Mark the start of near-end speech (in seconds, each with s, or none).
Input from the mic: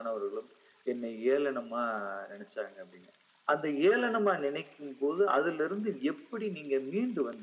none